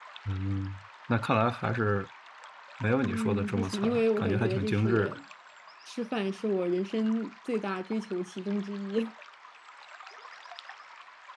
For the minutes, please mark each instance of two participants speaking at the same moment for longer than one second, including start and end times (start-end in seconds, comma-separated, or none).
3.0-5.2